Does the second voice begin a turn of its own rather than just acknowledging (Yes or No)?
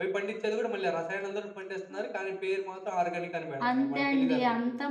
Yes